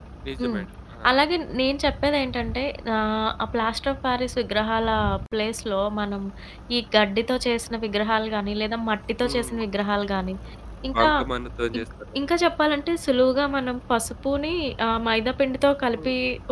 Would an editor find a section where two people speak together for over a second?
No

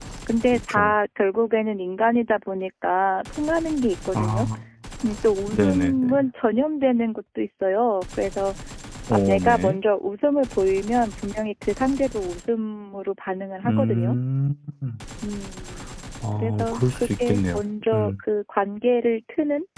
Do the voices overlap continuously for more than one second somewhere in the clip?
Yes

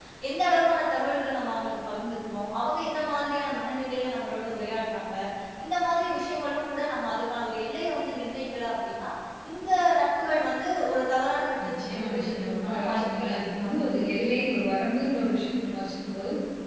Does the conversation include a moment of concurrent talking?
Yes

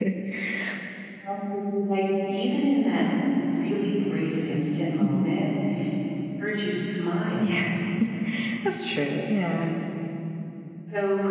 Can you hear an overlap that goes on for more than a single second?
No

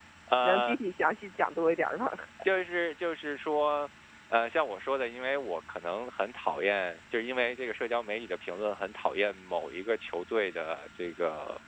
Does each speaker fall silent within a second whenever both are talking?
Yes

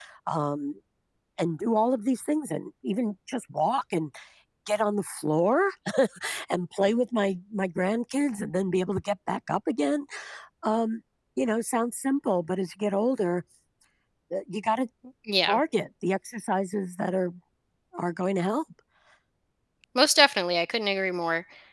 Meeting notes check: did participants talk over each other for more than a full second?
No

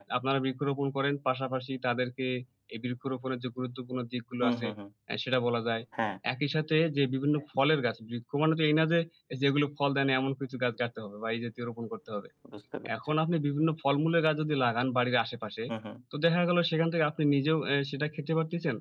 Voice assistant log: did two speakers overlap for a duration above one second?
No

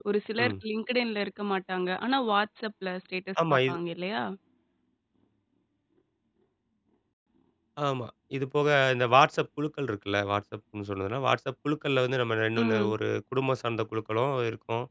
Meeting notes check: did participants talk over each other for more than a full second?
No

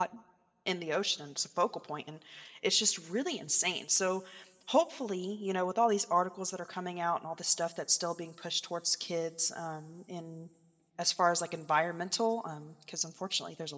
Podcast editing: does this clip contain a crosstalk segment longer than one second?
No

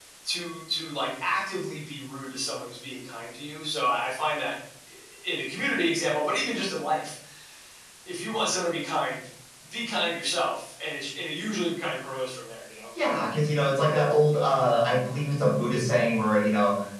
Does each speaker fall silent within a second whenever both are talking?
Yes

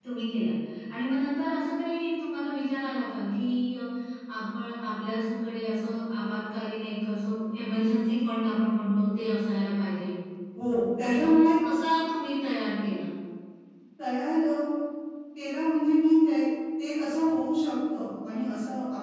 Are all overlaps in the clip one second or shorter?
Yes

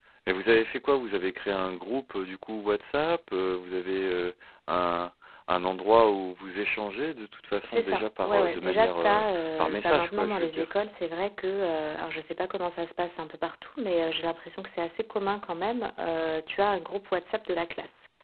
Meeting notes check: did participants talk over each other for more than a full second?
Yes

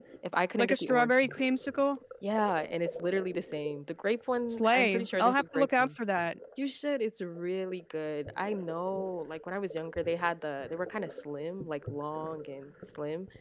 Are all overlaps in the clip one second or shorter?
No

